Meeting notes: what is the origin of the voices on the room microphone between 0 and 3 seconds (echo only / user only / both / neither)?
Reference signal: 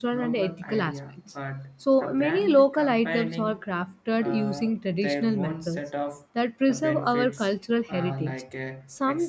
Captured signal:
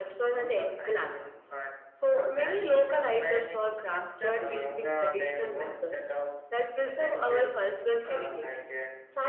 echo only